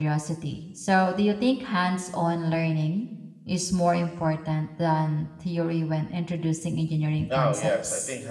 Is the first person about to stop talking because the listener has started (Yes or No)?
Yes